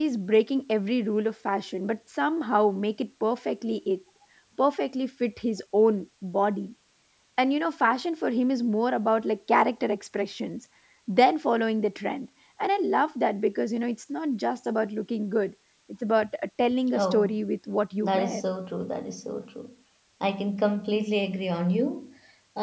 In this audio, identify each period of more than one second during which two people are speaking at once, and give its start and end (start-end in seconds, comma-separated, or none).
none